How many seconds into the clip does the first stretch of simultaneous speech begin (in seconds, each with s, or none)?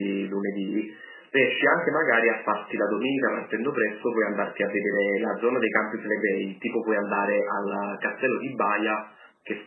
none